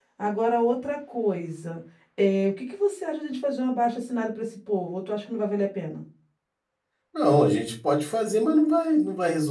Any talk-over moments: No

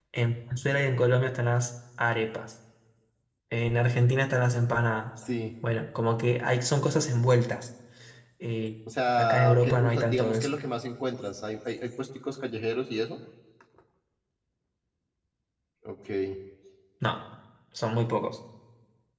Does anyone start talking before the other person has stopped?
Yes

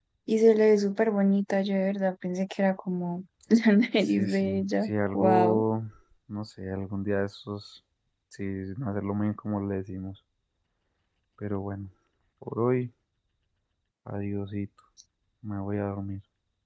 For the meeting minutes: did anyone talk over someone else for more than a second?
Yes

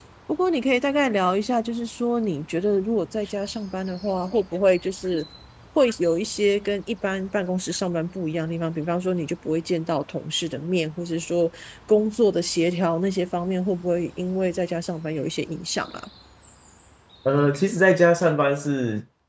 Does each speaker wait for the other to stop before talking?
Yes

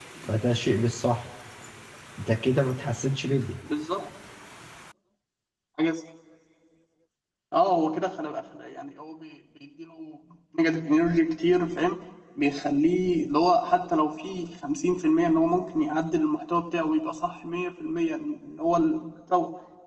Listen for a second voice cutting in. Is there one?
No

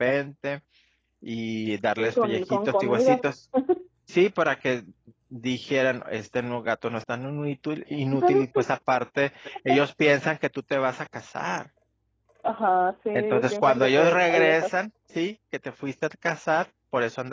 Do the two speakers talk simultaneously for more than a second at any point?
Yes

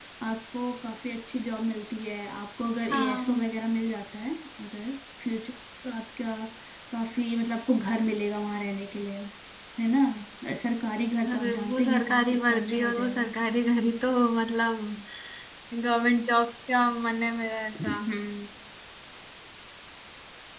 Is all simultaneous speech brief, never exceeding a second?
No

